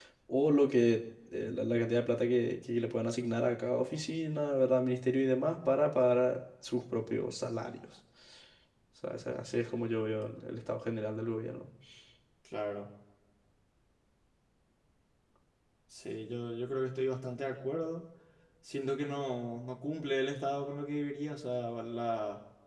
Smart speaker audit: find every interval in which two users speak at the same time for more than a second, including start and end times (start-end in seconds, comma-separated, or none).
none